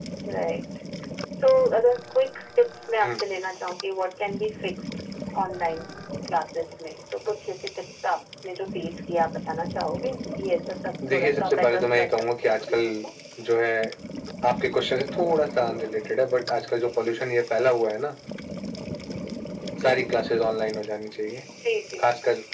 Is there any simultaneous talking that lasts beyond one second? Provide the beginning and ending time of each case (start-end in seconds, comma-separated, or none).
11.1-12.9